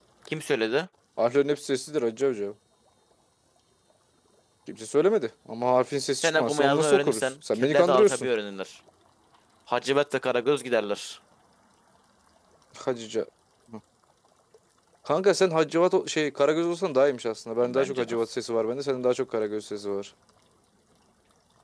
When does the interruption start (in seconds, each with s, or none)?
6.2 s